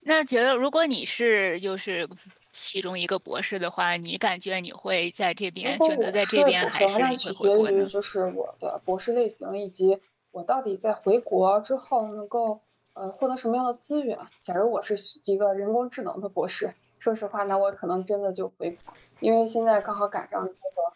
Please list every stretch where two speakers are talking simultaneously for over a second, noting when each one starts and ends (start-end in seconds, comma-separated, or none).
5.6-7.9